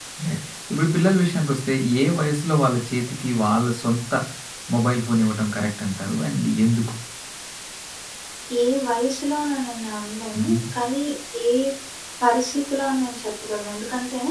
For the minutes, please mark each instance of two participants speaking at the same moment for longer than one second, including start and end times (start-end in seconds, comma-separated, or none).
none